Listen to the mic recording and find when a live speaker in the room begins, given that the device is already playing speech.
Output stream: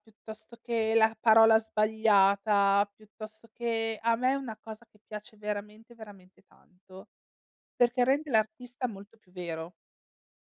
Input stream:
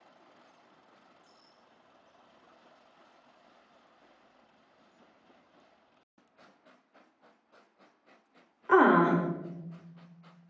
9 s

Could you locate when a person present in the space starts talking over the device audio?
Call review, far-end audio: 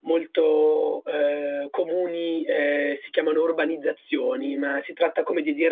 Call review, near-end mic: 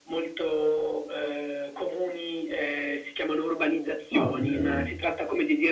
4 s

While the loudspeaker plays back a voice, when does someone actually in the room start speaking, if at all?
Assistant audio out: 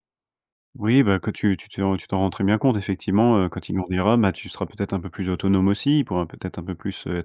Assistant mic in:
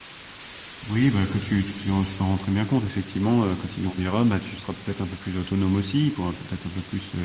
none

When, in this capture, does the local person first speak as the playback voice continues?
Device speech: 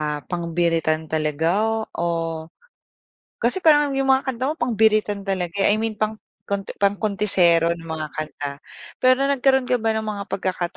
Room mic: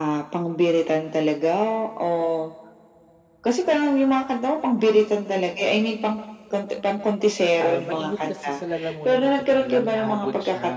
8 s

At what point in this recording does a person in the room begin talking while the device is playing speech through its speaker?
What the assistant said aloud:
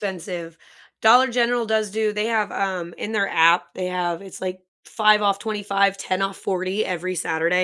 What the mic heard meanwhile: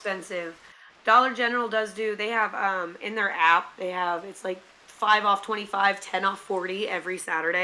none

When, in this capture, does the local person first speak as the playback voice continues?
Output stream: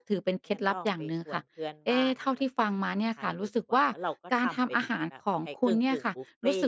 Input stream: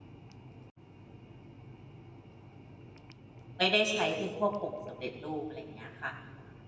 4 s

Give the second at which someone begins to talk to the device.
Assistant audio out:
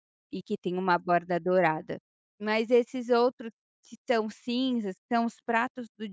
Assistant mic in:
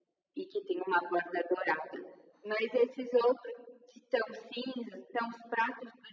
none

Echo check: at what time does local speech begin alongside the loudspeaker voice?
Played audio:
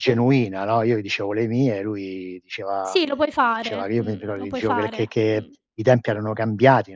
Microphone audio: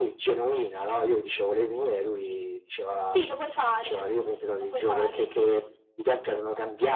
none

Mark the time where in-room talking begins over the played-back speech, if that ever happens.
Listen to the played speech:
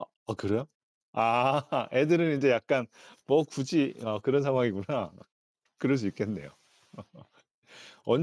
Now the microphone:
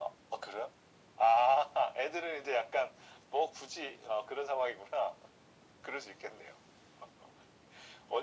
none

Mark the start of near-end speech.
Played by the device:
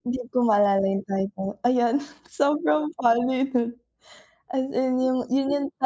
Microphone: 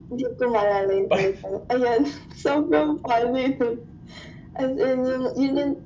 1 s

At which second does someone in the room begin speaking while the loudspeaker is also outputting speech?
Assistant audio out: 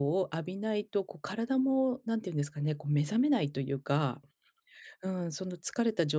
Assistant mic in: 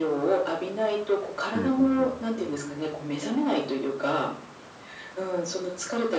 2 s

